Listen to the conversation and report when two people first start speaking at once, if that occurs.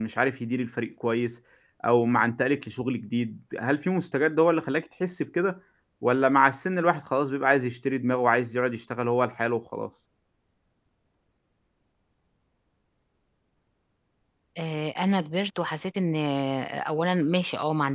none

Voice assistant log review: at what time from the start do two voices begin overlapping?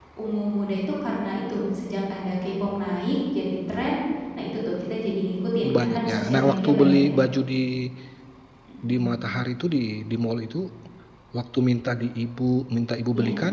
5.6 s

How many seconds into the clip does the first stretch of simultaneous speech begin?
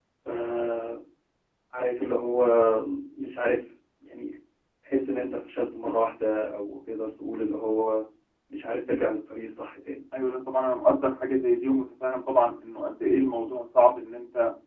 none

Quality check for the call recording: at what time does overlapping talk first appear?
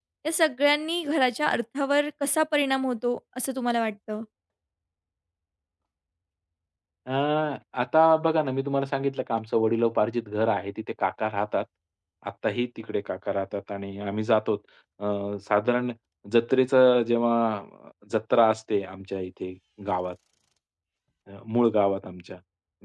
none

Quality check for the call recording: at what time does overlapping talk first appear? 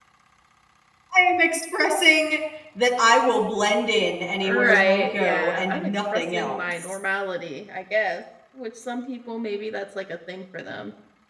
4.4 s

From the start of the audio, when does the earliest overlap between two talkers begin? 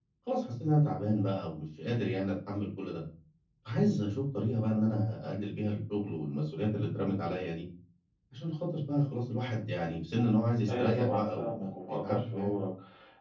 10.7 s

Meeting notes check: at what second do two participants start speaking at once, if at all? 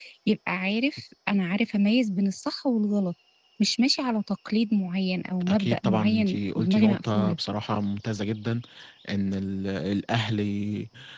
5.5 s

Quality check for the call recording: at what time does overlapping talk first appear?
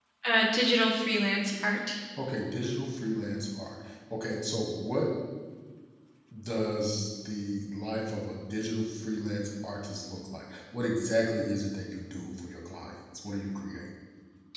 none

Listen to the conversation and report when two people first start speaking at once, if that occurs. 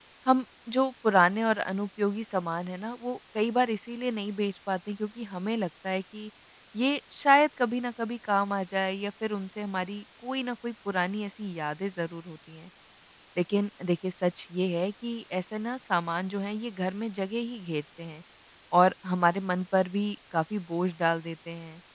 none

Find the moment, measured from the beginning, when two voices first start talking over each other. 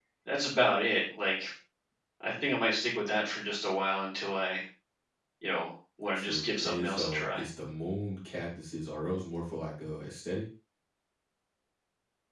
6.1 s

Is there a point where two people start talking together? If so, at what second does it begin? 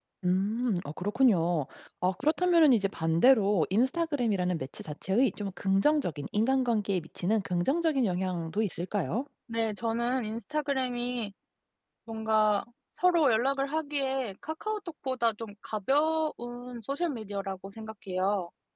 none

